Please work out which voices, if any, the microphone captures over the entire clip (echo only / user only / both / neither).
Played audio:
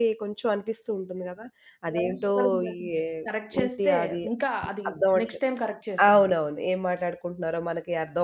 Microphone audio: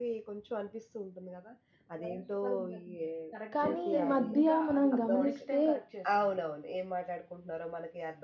both